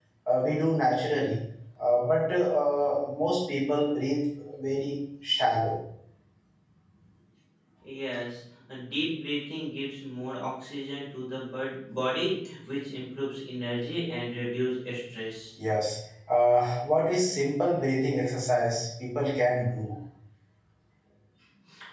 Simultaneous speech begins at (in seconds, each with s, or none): none